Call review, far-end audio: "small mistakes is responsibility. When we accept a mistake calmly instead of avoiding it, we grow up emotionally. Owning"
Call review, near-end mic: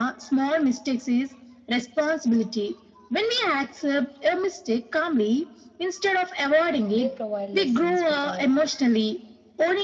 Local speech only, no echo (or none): They provide lessons without